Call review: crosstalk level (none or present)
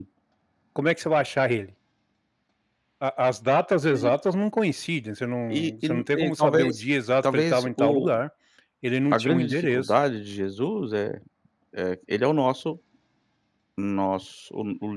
present